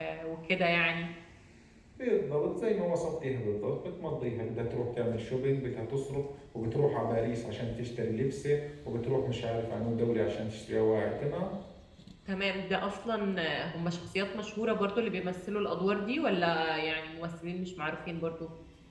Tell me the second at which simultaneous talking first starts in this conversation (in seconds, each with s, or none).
none